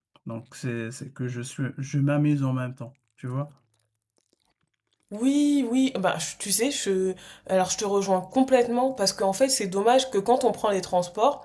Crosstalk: none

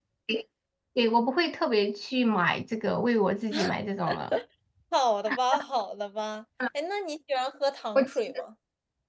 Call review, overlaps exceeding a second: none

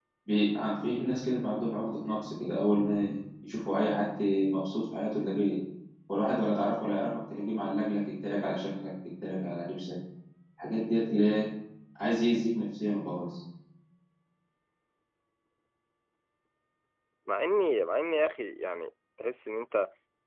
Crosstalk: none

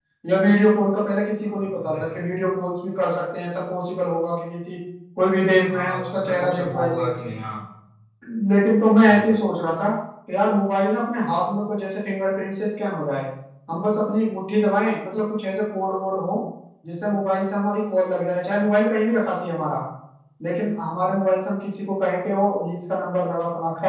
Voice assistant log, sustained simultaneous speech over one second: present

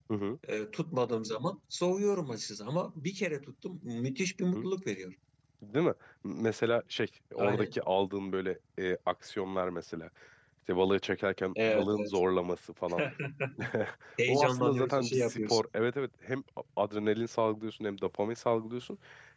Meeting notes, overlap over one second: present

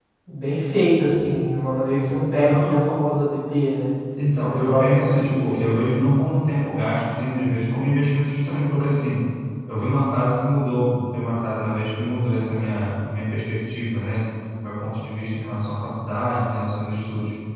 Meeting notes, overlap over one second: present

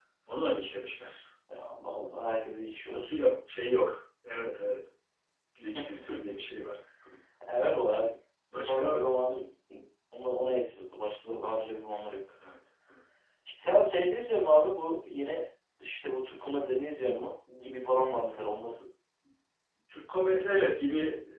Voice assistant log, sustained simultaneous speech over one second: none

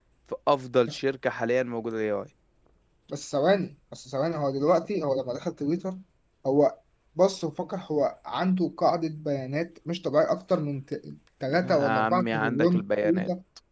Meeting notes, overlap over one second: present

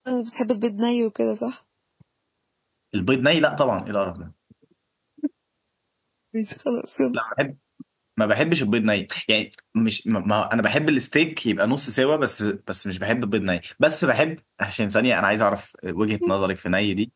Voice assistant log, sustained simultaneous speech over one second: none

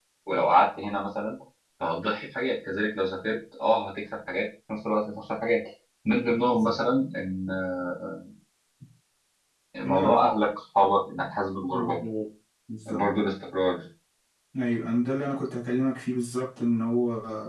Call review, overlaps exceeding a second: none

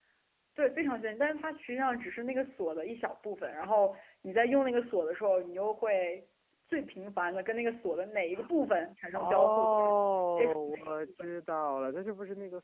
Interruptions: present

